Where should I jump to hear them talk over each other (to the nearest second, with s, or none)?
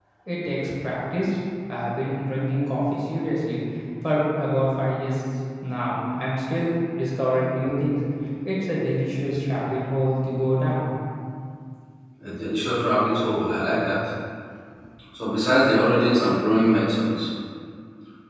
none